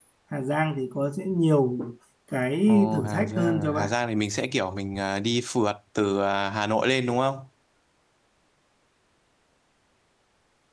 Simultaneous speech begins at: 3 s

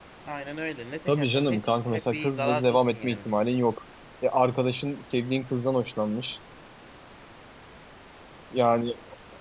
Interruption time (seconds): 1 s

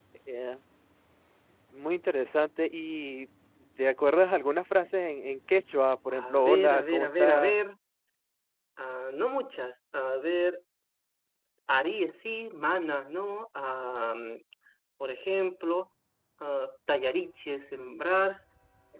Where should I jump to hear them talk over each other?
6 s

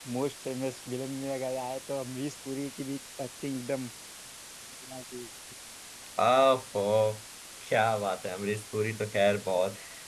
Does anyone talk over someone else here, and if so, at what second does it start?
none

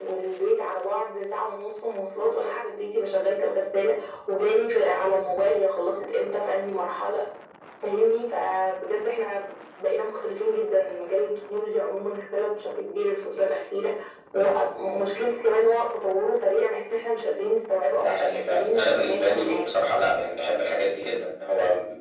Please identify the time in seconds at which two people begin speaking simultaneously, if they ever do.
18 s

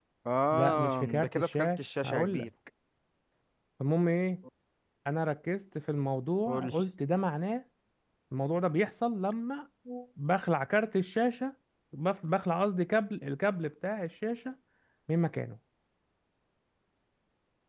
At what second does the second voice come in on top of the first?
1 s

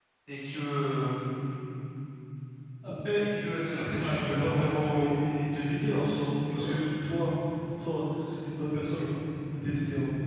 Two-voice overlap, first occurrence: 4 s

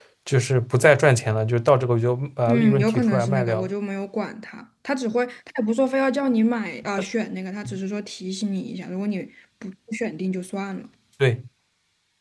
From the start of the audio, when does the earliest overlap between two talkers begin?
2 s

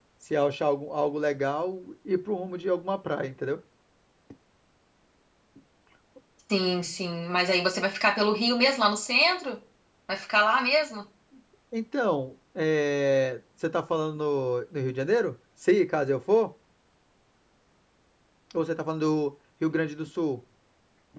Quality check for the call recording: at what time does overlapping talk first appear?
none

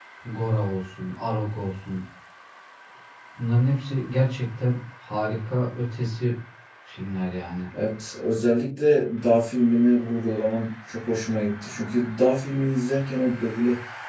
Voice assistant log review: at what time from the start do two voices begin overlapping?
none

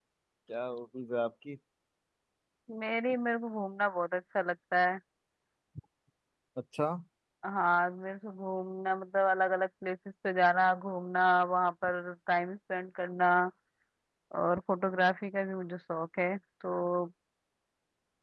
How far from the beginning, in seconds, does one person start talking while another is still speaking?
none

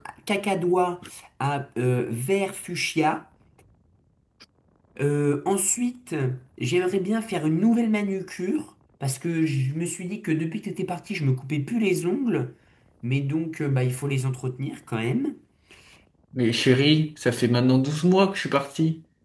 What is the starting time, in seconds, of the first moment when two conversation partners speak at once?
none

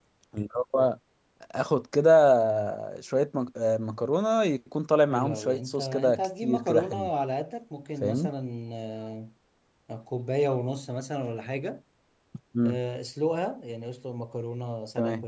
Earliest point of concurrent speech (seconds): 5 s

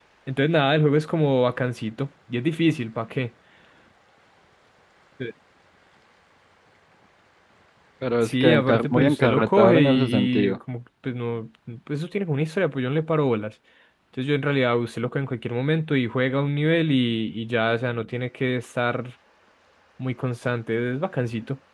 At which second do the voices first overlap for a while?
8 s

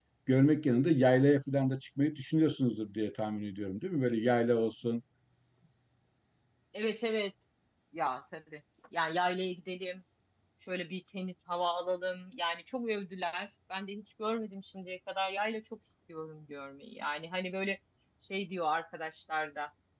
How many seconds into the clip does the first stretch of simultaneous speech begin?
none

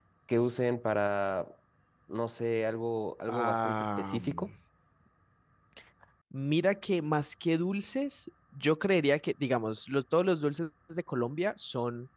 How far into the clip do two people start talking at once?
3 s

